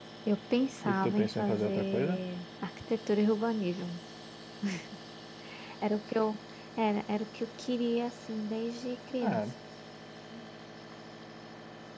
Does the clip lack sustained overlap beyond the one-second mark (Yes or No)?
No